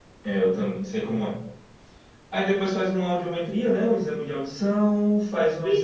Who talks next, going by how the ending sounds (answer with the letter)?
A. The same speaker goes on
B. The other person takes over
A